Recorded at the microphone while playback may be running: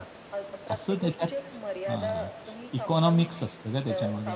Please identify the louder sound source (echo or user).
user